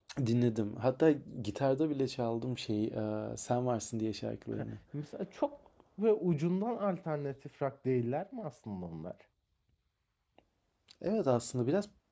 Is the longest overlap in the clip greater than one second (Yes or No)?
No